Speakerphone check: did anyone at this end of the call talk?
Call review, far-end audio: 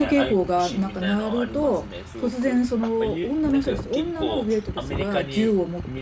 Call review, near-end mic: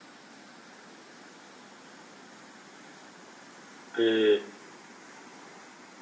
Yes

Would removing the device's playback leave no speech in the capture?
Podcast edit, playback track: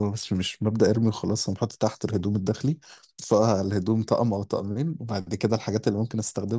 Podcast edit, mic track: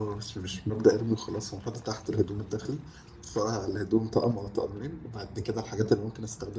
Yes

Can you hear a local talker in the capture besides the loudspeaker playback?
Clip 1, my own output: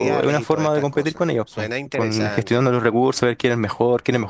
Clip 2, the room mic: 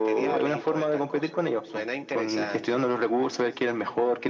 No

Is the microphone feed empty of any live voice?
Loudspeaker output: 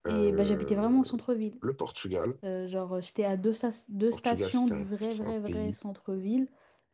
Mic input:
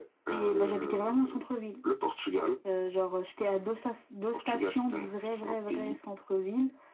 Yes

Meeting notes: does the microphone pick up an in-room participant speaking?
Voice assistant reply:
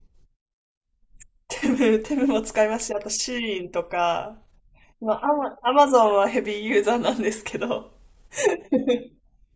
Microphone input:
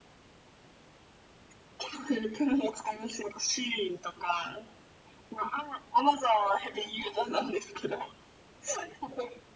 No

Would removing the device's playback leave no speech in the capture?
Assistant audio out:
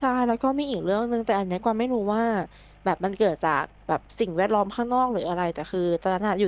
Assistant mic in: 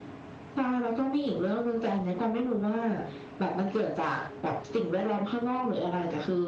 Yes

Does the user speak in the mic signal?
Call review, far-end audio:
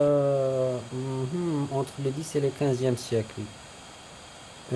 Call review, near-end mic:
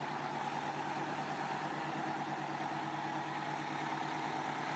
No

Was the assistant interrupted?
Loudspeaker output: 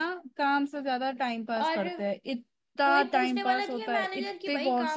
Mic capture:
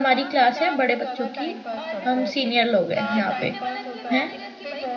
Yes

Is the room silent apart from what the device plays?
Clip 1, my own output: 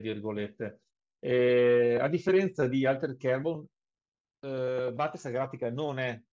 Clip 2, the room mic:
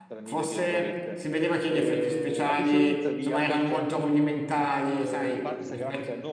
No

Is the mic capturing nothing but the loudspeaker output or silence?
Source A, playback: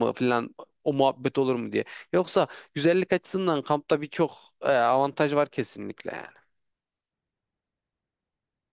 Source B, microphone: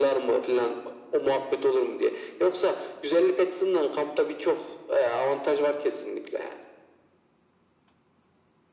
Yes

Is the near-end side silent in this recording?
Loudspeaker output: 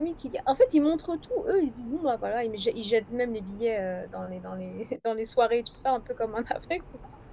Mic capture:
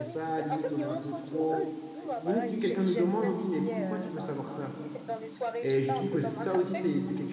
No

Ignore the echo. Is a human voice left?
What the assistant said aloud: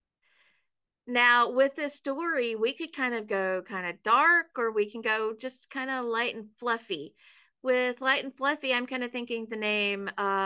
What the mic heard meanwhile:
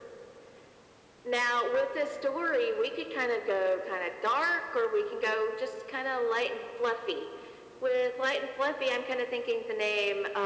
No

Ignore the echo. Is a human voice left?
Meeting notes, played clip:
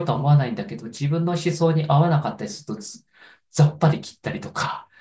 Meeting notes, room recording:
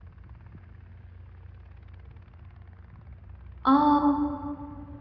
Yes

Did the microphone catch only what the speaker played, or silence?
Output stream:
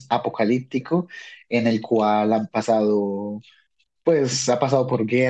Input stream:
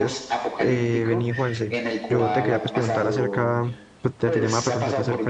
No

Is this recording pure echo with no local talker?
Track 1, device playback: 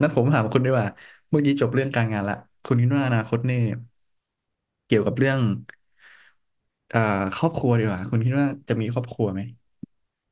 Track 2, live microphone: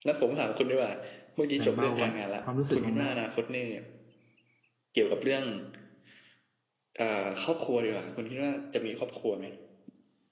No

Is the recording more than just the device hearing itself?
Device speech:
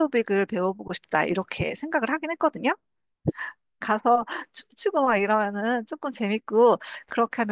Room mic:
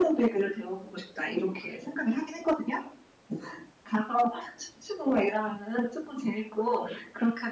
No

